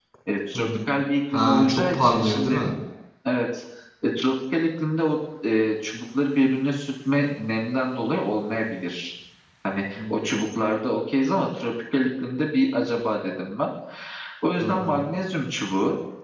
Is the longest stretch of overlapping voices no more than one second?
No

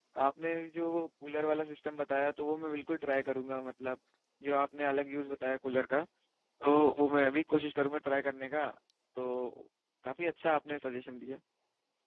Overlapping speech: No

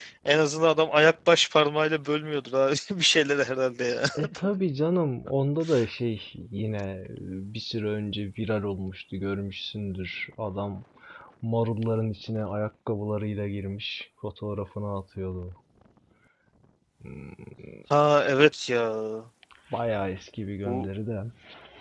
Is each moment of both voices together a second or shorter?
Yes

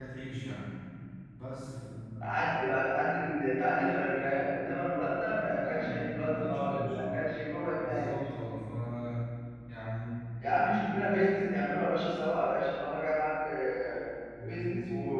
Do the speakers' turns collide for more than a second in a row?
Yes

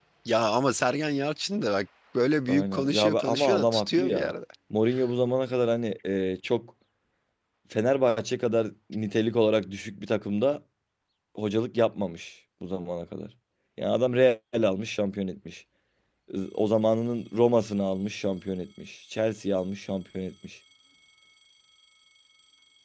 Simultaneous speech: Yes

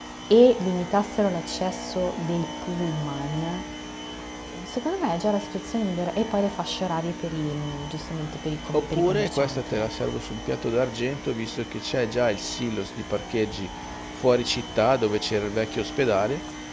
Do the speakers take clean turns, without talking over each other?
No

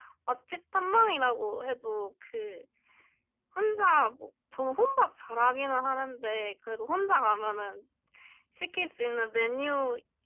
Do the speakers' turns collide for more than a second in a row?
No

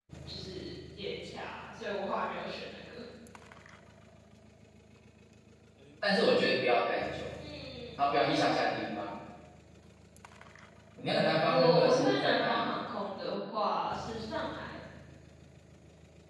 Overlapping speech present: Yes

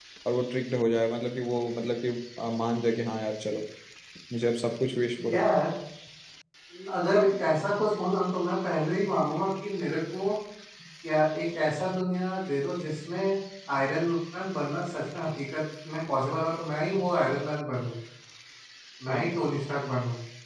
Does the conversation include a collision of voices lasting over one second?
No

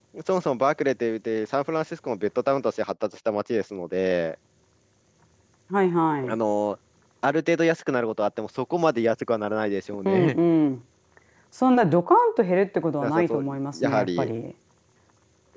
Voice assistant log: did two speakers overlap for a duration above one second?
Yes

